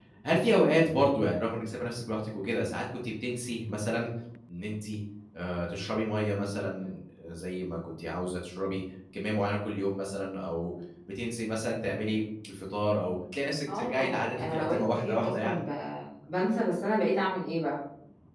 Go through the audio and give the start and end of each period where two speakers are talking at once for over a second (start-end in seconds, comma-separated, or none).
13.7-15.7